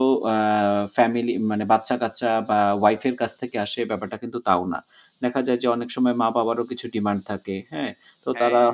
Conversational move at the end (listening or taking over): listening